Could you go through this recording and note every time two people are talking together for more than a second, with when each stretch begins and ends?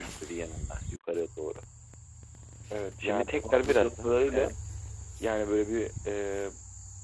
3.0-4.5

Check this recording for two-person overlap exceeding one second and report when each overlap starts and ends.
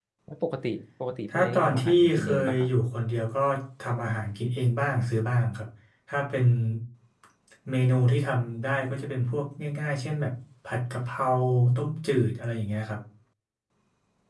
1.4-2.7

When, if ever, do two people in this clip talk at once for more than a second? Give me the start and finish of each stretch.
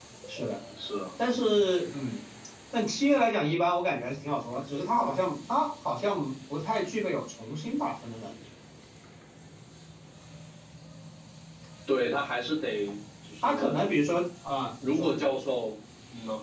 none

